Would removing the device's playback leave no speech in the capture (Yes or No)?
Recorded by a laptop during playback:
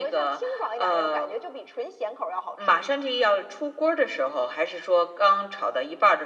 Yes